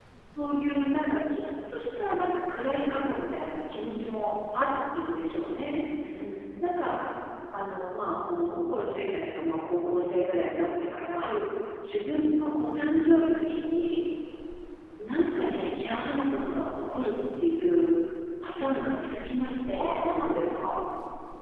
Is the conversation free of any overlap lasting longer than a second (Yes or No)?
Yes